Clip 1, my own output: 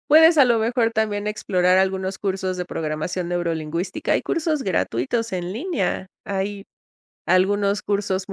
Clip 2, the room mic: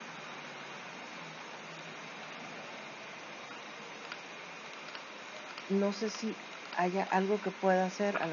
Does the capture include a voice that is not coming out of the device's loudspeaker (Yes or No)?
Yes